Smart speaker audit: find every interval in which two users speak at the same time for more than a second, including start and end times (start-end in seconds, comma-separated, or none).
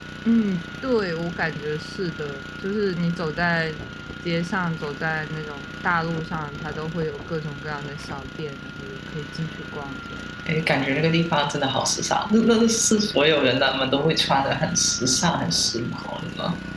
none